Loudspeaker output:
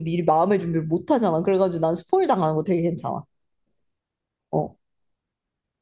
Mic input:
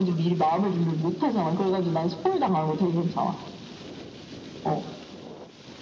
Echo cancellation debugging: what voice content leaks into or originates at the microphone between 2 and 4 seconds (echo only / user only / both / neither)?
echo only